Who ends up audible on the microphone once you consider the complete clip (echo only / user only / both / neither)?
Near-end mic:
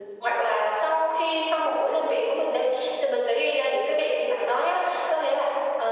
echo only